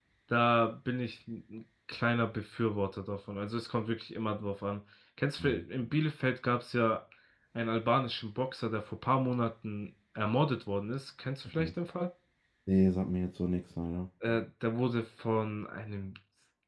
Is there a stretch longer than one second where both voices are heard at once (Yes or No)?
No